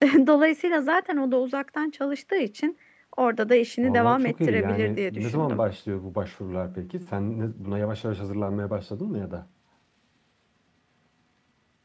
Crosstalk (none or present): present